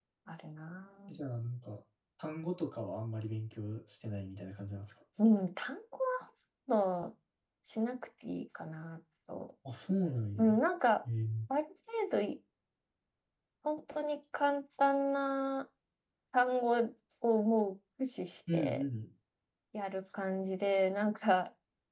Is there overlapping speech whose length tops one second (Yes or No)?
No